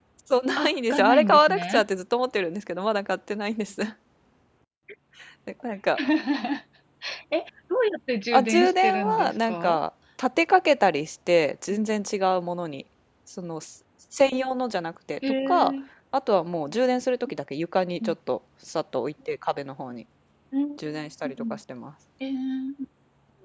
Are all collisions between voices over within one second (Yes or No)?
No